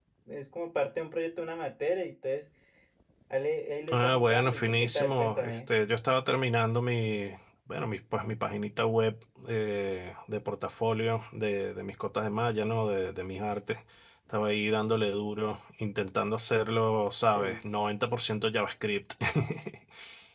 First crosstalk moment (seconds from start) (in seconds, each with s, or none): 3.9 s